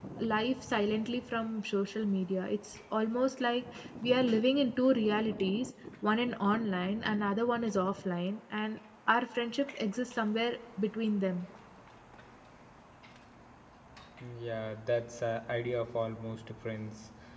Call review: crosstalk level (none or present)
none